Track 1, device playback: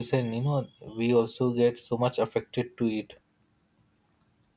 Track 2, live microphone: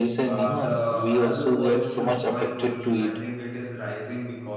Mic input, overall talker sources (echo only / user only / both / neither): both